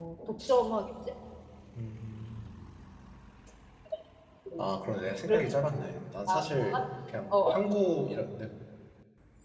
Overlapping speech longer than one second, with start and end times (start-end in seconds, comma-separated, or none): 5.3-6.6